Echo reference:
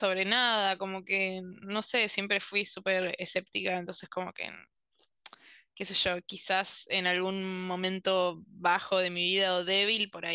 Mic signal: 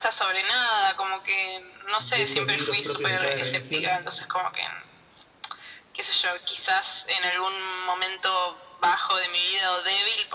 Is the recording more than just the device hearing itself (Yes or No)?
Yes